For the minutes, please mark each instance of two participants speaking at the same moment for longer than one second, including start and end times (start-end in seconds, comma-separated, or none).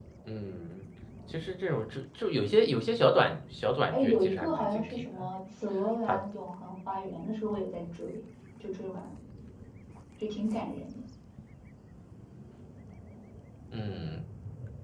3.9-5.2